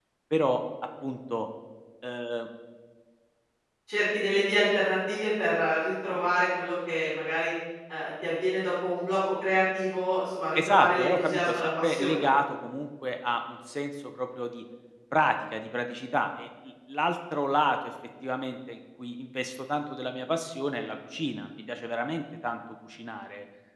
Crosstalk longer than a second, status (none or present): present